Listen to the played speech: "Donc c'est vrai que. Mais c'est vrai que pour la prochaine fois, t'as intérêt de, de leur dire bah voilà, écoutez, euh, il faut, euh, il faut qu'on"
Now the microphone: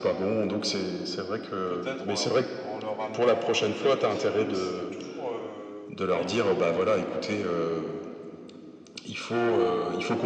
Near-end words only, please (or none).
peut-être en, leur- en leur amenant euh, quelques idées, mais c'est toujours euh, pas évident